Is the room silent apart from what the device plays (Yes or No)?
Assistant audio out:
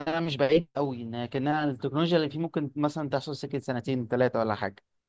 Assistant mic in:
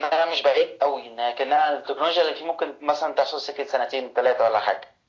Yes